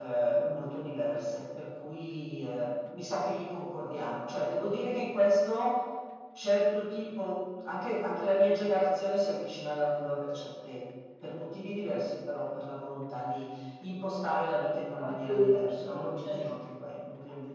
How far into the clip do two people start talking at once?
15.0 s

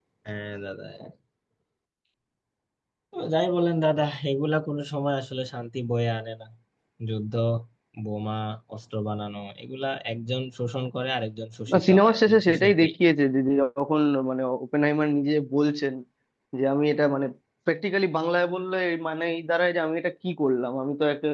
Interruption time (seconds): 11.7 s

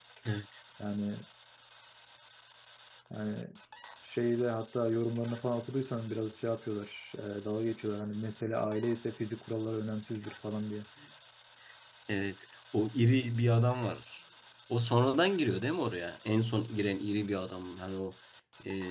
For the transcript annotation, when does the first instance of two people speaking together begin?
none

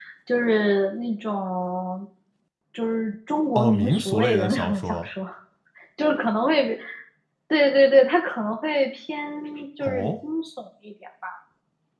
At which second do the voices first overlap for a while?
3.5 s

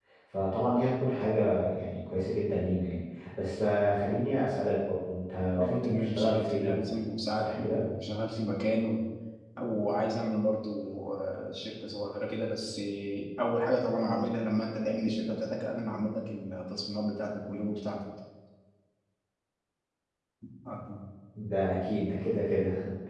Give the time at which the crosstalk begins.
5.6 s

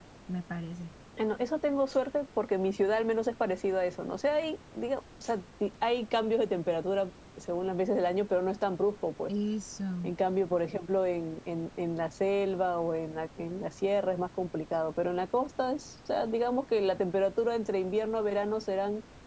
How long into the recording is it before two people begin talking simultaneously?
none

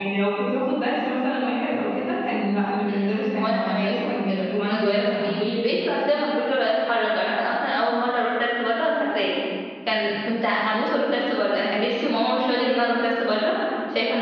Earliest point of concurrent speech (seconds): 2.9 s

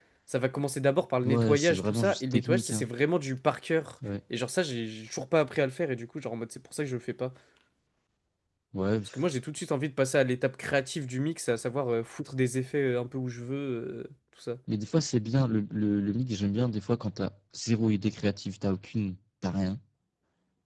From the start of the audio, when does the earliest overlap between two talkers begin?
1.2 s

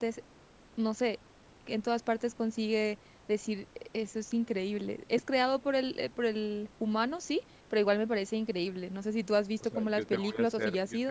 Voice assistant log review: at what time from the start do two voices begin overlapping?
9.6 s

